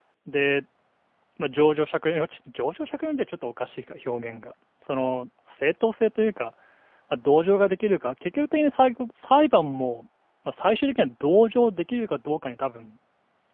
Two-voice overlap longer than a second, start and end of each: none

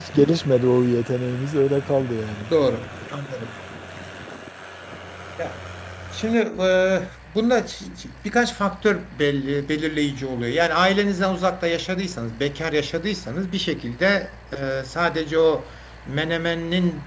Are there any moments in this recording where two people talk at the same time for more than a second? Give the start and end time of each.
none

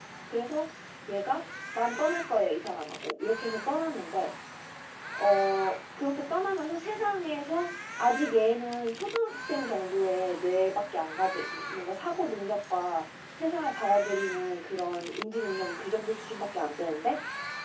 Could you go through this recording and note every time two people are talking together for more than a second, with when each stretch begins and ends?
none

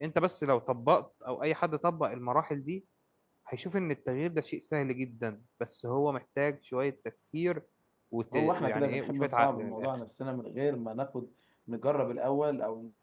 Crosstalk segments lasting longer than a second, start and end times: 8.3-9.9

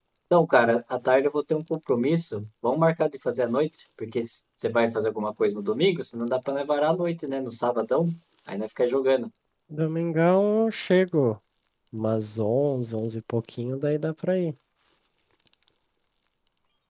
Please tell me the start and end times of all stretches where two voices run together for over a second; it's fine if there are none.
none

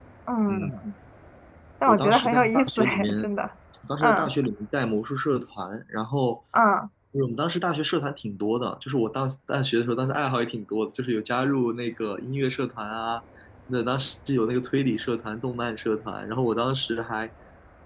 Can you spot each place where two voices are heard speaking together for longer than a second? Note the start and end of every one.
1.9-3.1

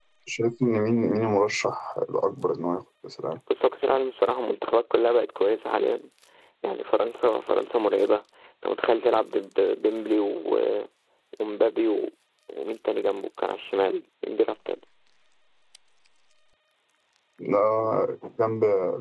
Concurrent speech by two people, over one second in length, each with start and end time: none

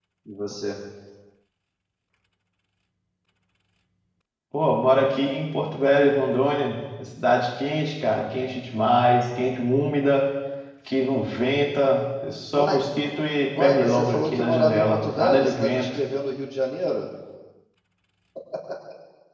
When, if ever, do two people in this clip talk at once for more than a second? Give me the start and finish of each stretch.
13.6-16.0

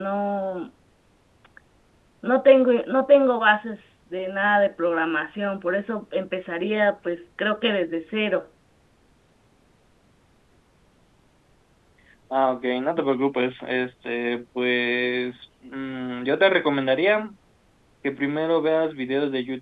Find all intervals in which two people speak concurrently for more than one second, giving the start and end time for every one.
none

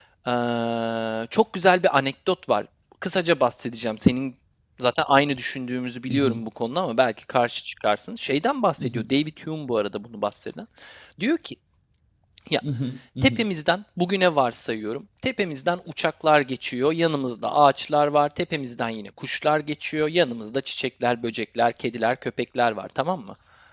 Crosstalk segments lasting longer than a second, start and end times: none

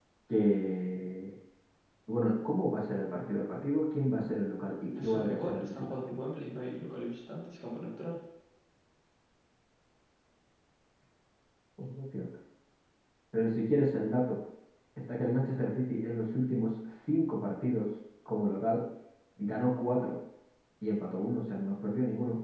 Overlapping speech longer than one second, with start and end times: 4.8-6.1

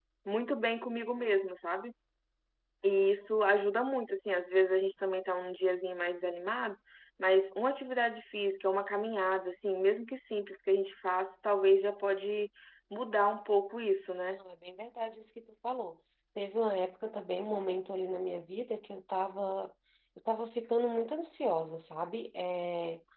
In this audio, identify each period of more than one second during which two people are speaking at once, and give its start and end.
none

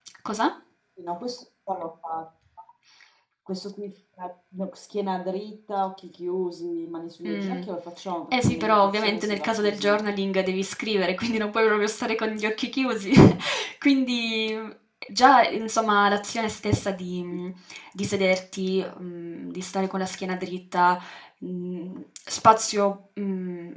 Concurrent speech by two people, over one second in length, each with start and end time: 8.3-10.0

